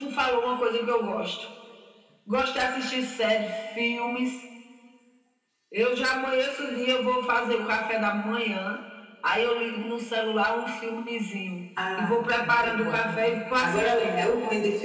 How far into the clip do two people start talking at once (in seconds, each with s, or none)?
11.8 s